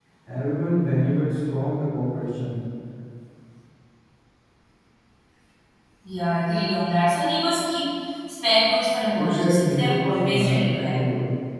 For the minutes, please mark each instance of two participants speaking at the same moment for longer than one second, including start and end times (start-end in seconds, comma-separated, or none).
9.2-11.0